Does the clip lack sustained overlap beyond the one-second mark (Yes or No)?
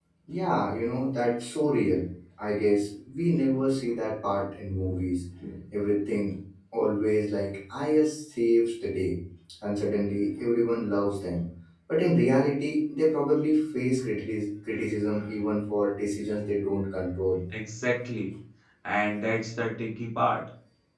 Yes